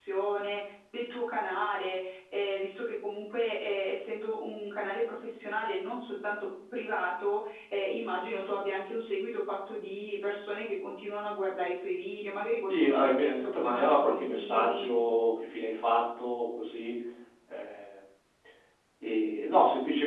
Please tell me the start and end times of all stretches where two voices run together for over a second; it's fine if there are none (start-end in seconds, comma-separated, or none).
12.7-14.9